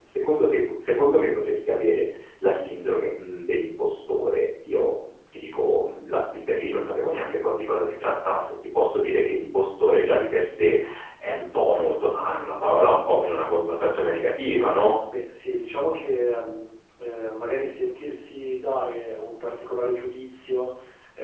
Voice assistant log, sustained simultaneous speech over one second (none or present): none